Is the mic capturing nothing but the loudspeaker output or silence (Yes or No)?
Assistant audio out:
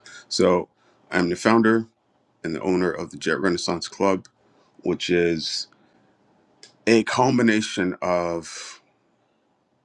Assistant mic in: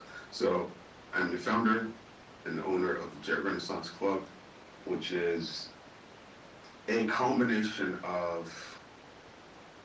Yes